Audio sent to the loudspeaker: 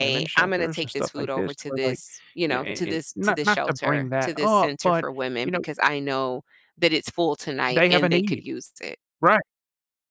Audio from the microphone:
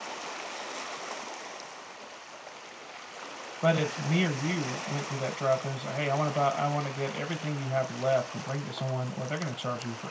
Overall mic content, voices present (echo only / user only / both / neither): user only